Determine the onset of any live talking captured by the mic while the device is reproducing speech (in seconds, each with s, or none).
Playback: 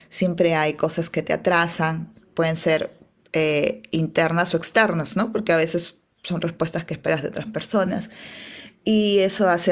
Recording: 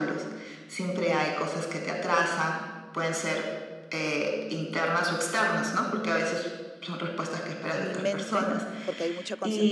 7.7 s